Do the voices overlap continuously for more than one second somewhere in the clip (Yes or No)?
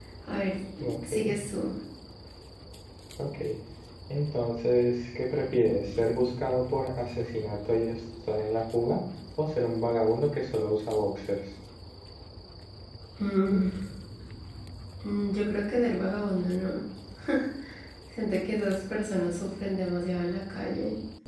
No